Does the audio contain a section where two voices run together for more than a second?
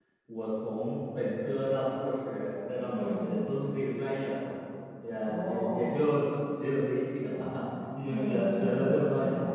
Yes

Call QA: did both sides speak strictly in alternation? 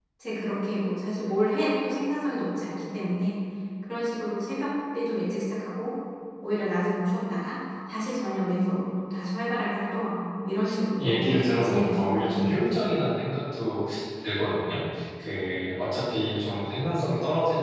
No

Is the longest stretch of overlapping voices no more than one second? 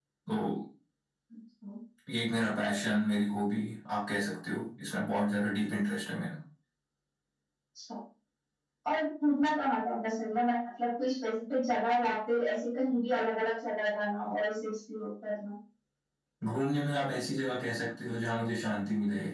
Yes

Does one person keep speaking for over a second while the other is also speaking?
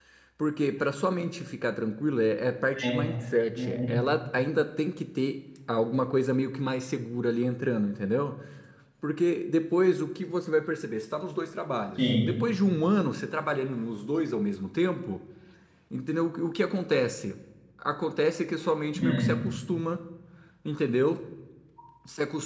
No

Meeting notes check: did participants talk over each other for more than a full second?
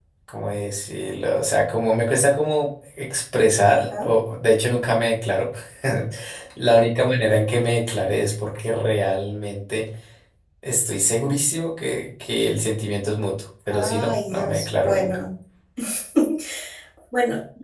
Yes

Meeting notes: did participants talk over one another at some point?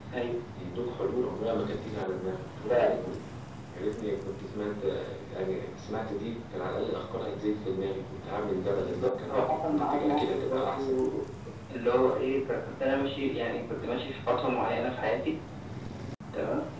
Yes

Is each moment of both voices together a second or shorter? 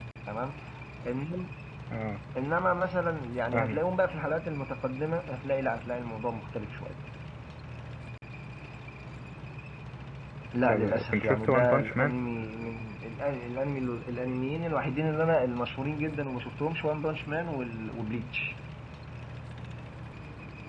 No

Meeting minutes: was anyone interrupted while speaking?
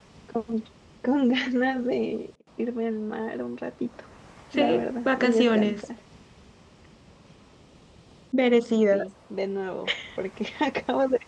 Yes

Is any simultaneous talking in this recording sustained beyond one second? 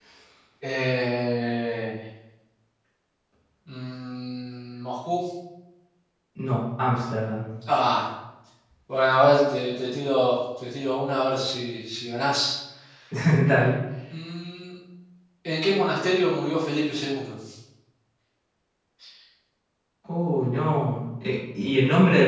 No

